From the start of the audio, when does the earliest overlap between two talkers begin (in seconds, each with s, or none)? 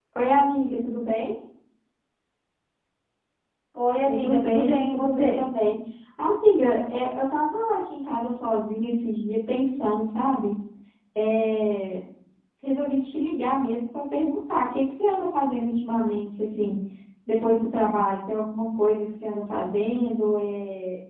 4.0 s